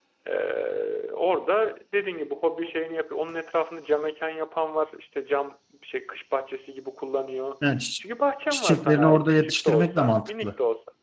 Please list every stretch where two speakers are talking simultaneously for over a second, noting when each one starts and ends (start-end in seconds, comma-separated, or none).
8.5-10.5